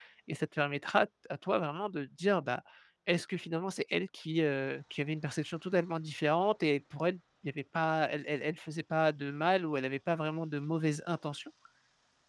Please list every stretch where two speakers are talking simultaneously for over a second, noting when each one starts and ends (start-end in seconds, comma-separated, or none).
none